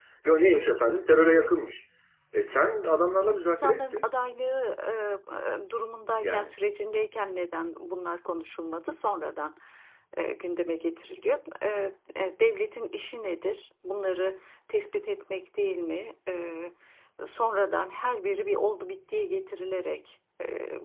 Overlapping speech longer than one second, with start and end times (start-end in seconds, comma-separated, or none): 2.8-4.0